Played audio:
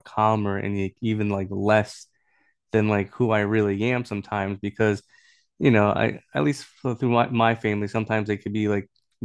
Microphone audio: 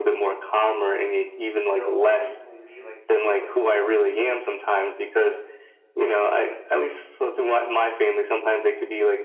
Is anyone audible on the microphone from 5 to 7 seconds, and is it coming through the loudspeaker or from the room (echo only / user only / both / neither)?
echo only